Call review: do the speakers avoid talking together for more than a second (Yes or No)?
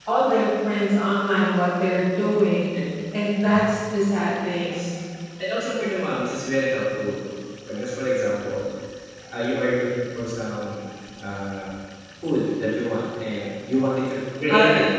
Yes